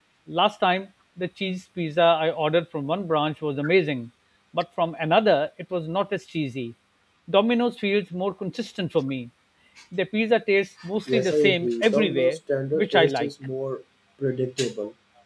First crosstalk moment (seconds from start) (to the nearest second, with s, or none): 11 s